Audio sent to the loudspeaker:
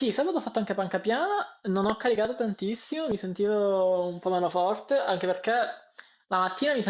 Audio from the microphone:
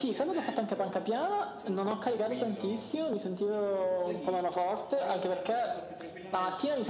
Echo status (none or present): present